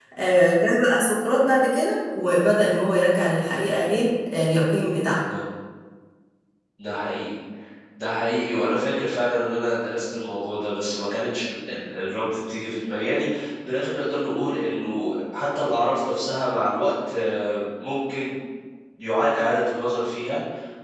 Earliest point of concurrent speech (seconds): none

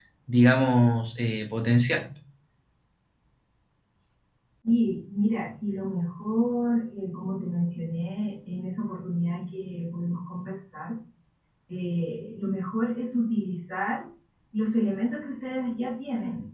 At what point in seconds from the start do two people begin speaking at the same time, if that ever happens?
none

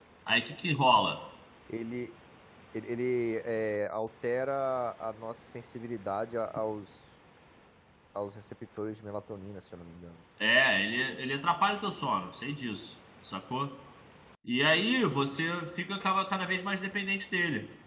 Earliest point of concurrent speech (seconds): none

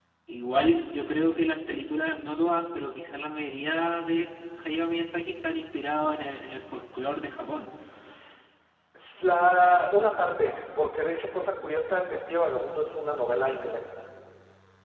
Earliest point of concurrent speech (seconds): none

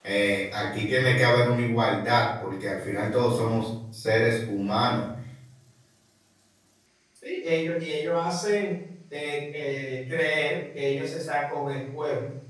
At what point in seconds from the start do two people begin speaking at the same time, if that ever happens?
none

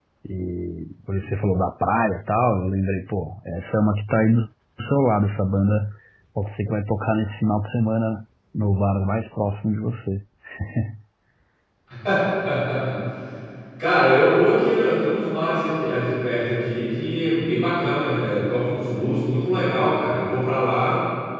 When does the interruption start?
none

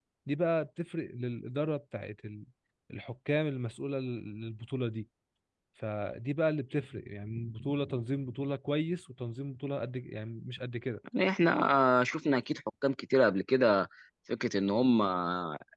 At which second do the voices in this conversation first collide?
none

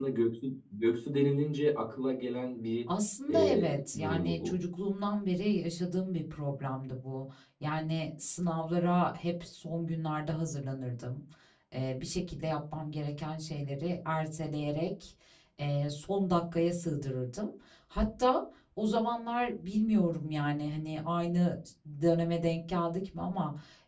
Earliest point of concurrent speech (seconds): 3.3 s

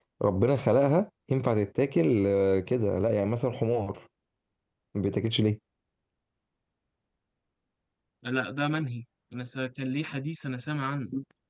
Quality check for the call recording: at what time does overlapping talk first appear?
none

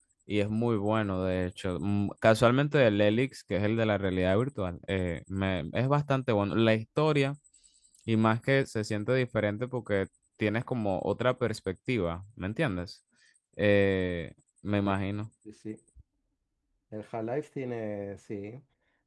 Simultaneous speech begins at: none

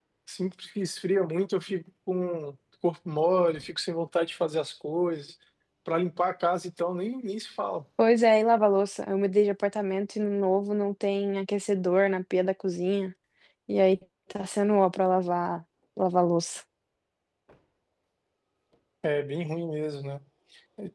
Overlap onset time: none

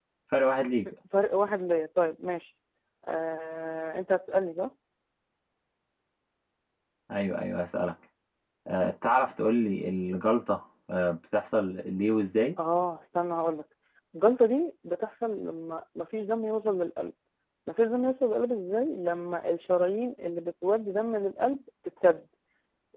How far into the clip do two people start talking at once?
none

